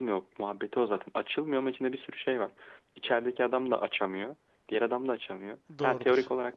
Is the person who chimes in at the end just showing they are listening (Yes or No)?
Yes